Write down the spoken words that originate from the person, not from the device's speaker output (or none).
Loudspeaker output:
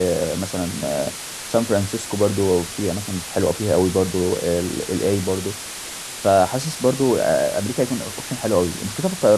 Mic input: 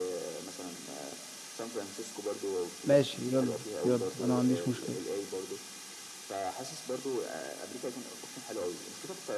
ماشي يلا يلا انا ما عنديش مشكلة